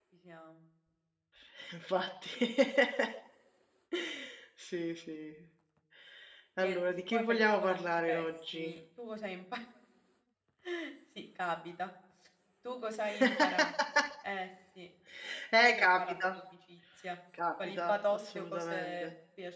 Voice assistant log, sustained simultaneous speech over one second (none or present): present